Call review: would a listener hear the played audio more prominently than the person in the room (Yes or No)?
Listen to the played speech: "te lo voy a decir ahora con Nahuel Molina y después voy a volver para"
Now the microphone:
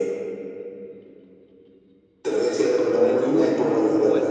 Yes